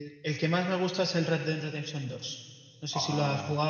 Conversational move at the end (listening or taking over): taking over